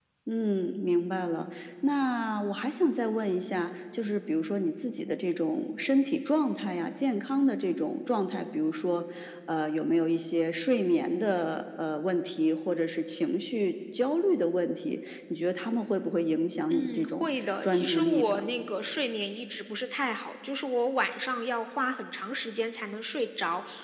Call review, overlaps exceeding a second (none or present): present